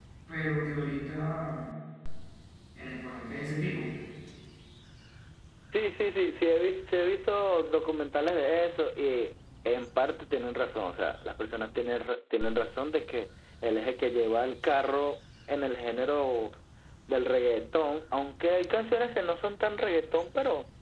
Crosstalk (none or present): none